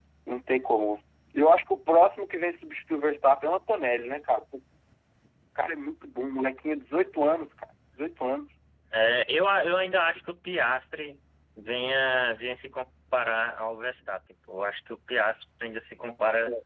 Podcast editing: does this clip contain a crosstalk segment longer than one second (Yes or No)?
No